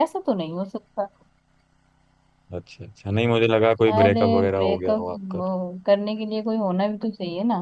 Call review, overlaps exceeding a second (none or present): present